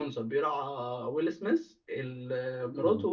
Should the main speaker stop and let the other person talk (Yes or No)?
No